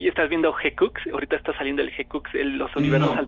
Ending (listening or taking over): taking over